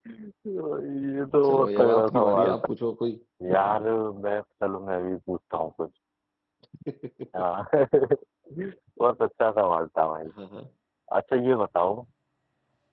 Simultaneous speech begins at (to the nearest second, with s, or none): 1 s